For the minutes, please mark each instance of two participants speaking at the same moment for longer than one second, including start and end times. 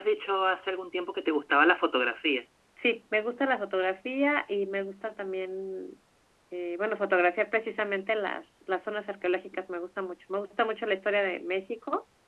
none

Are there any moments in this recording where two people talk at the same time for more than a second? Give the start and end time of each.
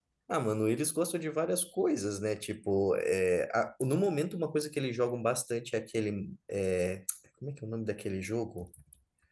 none

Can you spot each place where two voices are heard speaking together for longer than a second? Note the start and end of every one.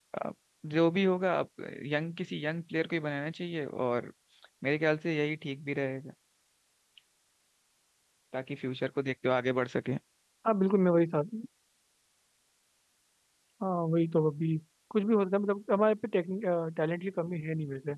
none

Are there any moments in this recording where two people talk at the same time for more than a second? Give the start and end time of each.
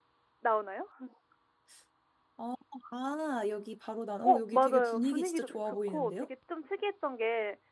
4.2-6.3

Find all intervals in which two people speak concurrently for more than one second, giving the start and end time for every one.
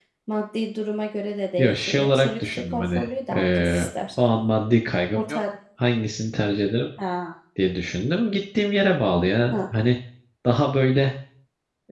1.6-3.9

